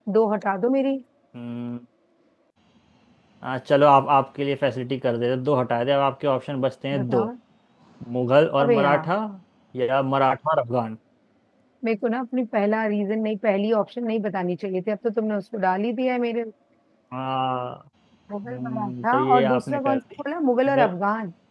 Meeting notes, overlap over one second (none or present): present